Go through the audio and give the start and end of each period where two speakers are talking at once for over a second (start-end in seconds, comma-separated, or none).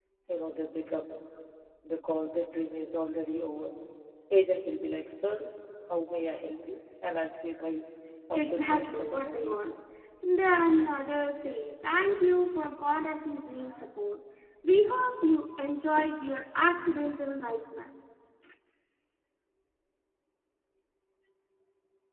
8.3-9.6